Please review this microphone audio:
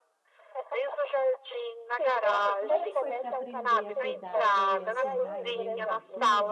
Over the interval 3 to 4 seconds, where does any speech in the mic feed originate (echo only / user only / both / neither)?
both